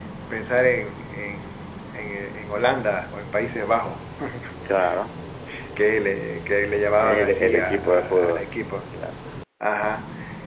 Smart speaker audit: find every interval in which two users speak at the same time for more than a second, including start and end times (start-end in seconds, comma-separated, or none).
7.0-8.5